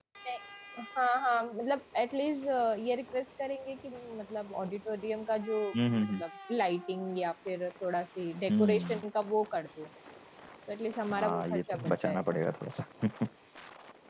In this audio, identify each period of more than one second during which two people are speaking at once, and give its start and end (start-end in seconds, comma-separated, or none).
11.1-12.4